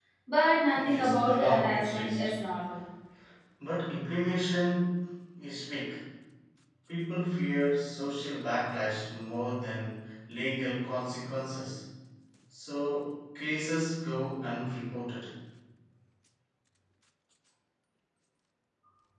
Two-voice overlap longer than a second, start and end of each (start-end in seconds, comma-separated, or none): 0.7-2.3